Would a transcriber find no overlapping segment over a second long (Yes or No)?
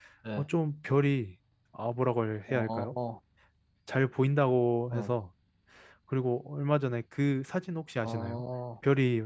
Yes